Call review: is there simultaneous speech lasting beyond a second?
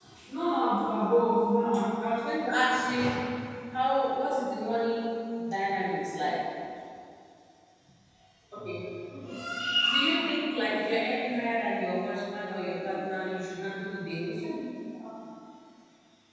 No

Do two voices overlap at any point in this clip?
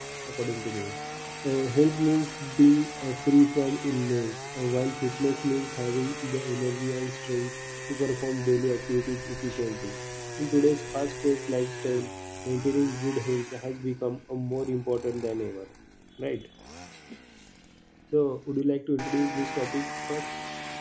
No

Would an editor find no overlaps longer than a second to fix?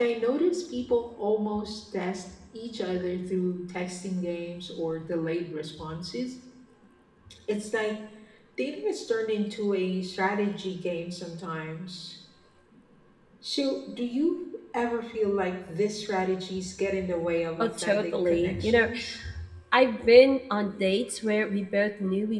No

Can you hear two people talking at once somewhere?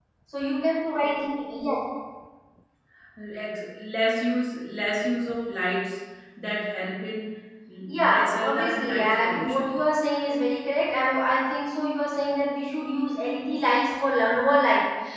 Yes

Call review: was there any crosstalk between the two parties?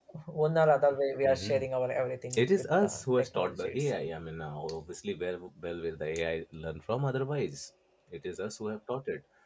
Yes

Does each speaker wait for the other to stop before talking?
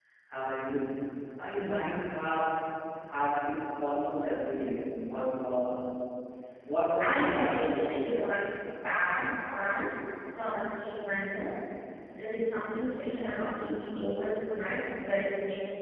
No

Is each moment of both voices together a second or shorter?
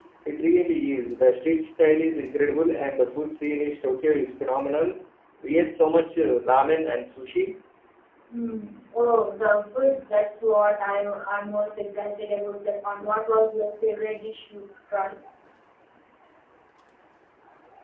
Yes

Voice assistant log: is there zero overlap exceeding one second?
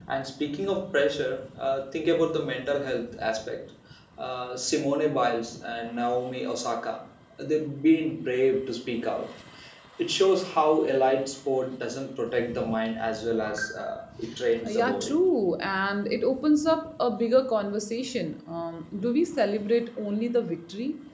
Yes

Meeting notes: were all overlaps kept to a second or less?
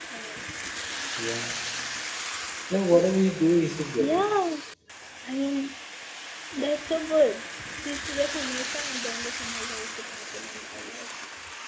Yes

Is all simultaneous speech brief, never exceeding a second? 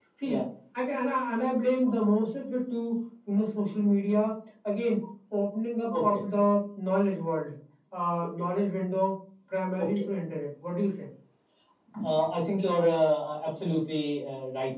Yes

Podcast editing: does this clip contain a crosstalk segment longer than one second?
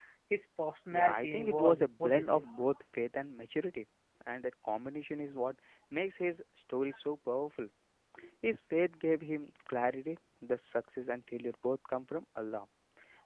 Yes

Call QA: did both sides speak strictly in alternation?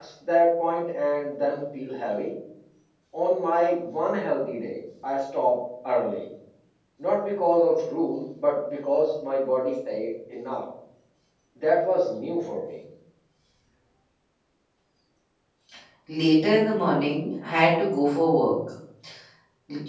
Yes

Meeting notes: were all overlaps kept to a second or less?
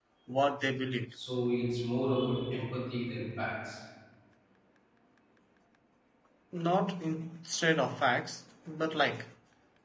Yes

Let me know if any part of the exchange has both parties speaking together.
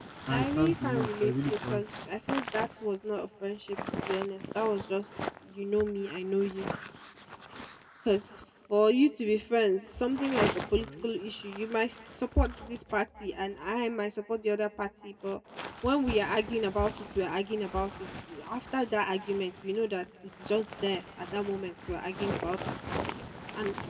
Yes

